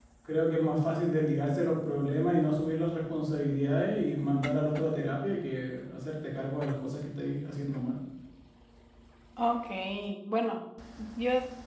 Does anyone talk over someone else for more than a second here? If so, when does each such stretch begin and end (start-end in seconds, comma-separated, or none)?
none